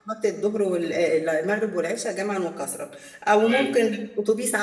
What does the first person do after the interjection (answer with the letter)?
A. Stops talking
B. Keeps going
B